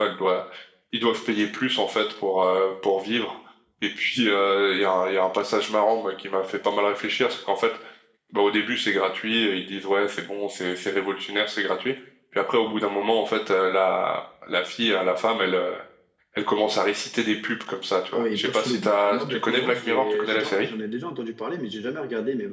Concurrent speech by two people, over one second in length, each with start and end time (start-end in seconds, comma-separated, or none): 18.1-20.7